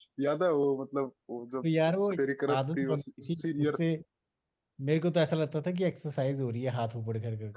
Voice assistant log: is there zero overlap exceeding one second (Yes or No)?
No